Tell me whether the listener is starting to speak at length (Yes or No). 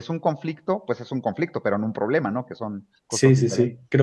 Yes